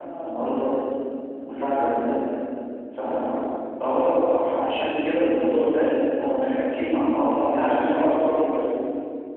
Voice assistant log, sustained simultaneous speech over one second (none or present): none